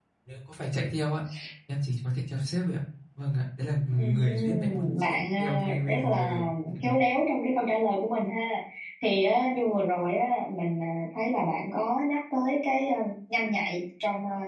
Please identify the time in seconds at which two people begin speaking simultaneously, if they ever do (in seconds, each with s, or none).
3.9 s